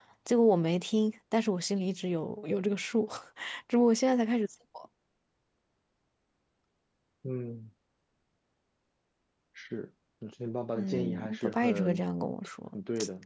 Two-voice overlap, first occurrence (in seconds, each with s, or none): 10.8 s